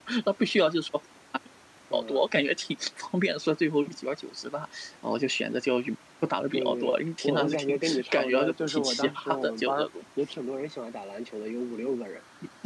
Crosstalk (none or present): present